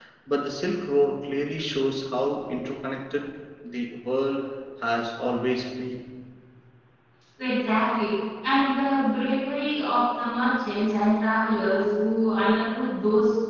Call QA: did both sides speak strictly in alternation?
Yes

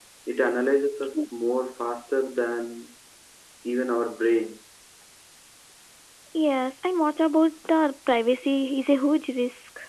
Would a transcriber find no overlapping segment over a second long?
Yes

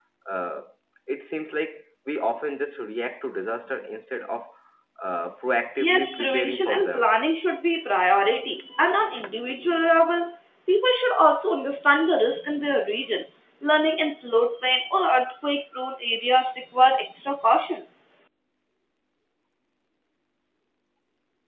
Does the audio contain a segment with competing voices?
Yes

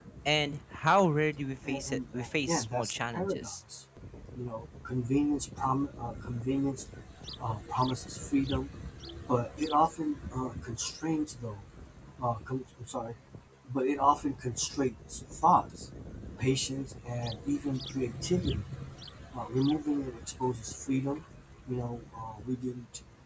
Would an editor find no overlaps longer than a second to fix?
No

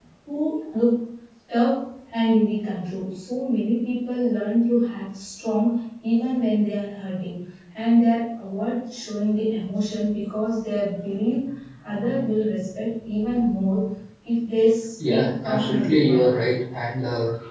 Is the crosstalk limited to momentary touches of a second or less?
No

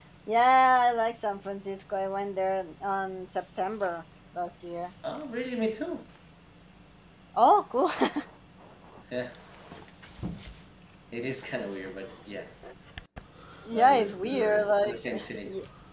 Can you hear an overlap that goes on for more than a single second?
Yes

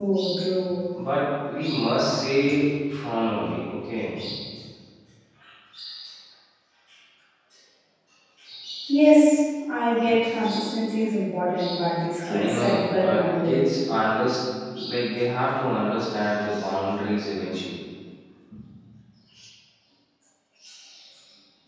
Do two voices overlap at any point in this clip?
Yes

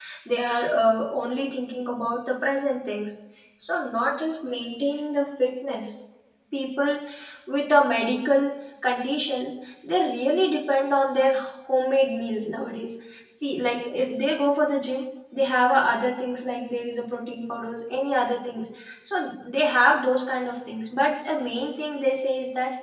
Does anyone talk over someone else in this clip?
No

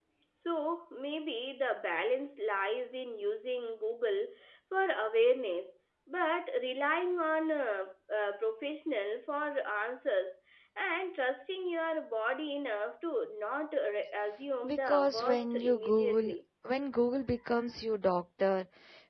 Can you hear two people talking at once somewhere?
Yes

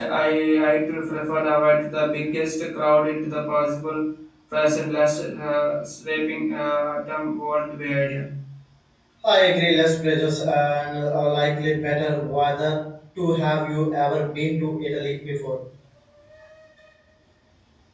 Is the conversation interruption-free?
Yes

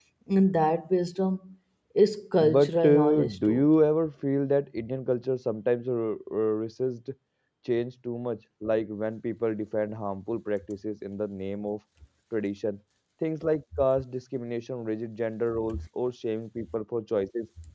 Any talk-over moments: Yes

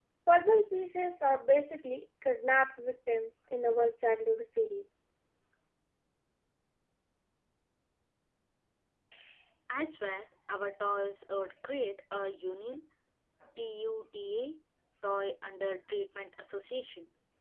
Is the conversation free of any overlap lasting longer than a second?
Yes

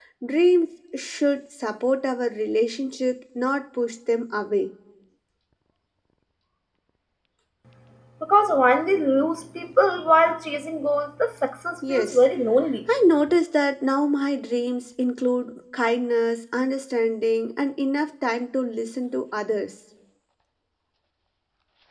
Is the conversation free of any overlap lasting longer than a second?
Yes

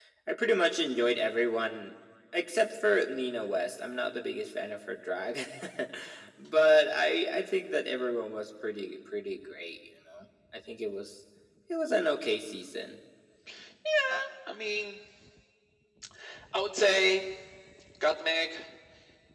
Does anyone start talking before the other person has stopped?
No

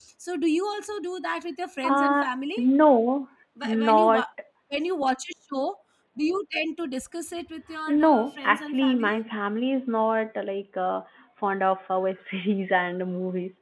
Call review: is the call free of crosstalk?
No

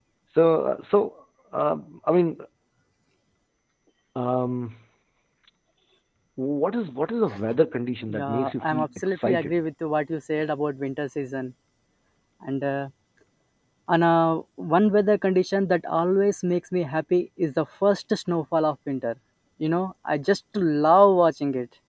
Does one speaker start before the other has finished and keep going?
Yes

